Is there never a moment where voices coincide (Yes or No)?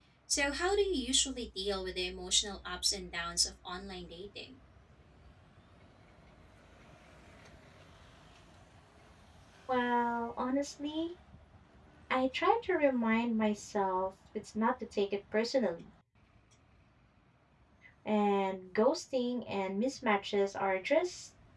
Yes